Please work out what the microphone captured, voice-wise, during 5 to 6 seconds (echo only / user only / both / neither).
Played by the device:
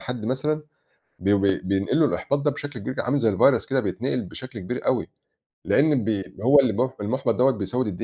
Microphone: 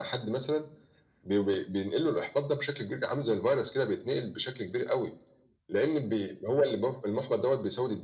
echo only